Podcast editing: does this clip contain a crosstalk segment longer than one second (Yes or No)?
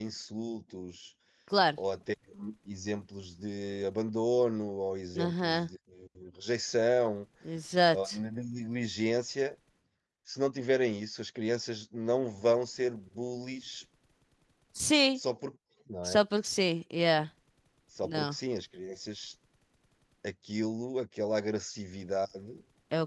No